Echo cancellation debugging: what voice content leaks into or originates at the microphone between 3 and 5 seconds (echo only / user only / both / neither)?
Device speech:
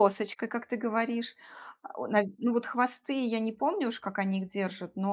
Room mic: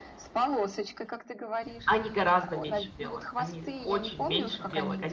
both